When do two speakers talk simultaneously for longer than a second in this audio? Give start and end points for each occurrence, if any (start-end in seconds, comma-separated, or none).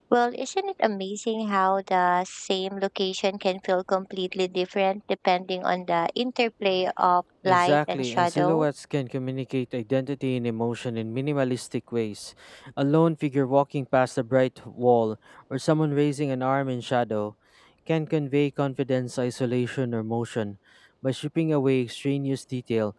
7.4-8.6